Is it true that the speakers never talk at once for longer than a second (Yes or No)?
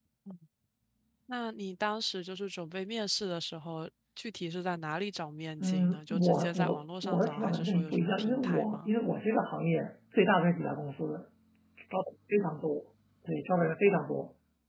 No